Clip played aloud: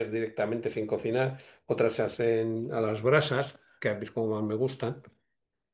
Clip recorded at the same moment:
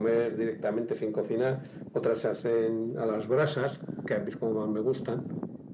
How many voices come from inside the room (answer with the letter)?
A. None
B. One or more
A